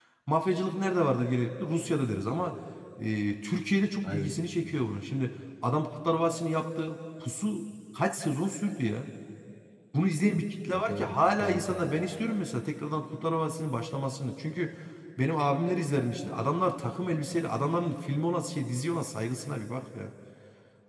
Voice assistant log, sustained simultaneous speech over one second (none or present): present